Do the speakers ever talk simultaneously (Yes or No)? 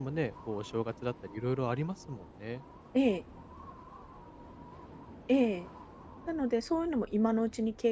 No